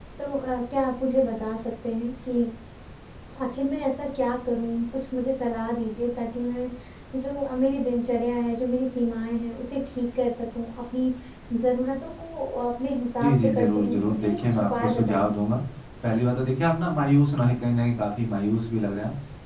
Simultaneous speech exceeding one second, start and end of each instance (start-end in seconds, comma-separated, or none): 13.2-15.3